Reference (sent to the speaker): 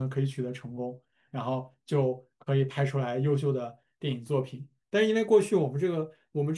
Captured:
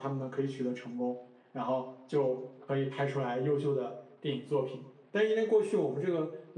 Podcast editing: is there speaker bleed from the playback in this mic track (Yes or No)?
Yes